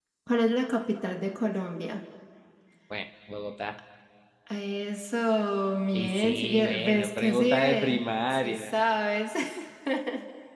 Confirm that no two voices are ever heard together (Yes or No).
No